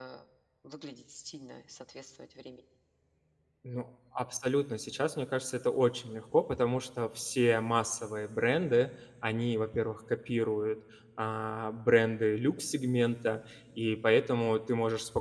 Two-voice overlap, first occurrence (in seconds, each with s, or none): none